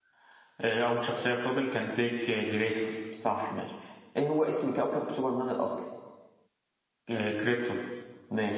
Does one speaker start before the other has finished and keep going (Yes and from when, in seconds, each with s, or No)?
No